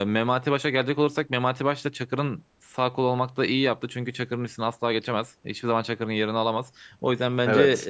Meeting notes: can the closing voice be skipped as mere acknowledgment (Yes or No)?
Yes